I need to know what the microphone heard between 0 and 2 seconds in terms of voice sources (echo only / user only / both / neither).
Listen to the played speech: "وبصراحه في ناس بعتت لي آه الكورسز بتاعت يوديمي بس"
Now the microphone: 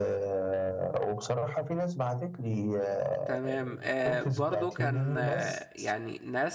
echo only